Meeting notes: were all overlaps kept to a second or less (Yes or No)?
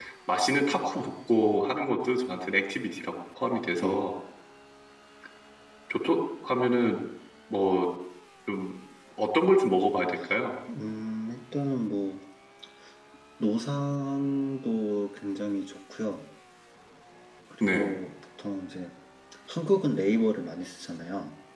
Yes